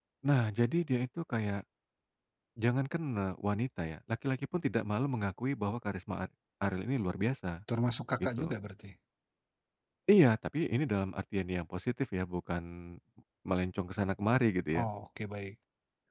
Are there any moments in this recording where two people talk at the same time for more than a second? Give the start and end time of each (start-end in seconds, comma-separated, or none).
none